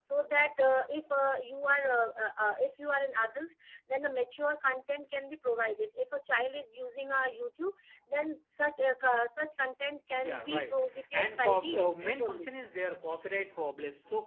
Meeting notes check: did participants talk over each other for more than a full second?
Yes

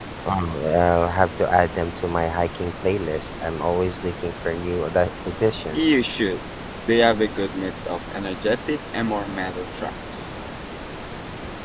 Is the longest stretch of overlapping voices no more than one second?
Yes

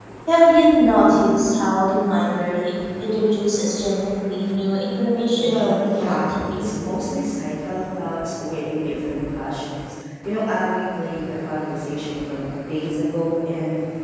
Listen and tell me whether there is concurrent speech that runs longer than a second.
Yes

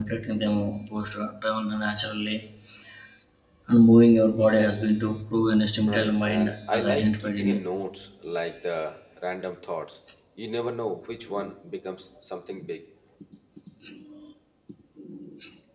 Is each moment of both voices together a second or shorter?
No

